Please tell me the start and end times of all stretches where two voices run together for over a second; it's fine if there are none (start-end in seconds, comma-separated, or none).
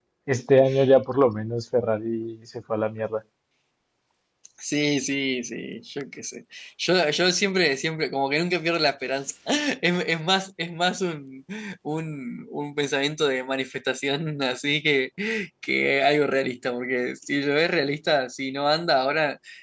none